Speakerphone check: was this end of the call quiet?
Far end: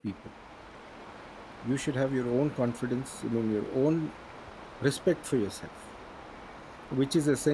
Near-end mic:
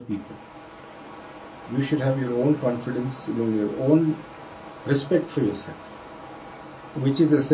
Yes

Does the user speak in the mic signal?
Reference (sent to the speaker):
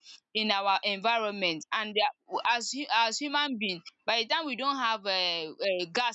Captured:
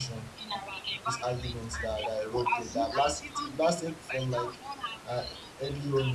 Yes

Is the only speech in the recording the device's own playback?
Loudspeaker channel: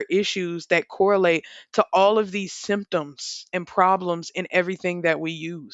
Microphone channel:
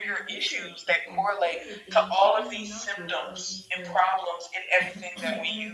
No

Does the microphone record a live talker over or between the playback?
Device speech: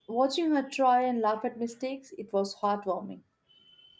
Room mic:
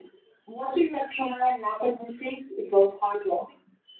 No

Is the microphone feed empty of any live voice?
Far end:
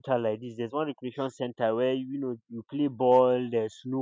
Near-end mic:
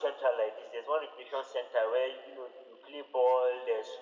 Yes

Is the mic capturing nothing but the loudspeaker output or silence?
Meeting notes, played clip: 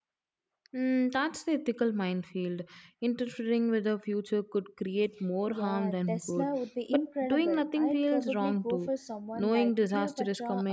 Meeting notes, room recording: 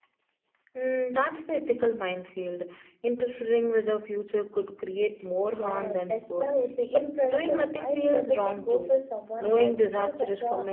Yes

